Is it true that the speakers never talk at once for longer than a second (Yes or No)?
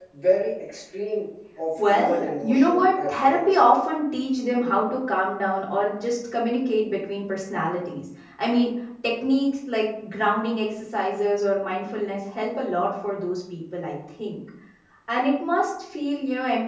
No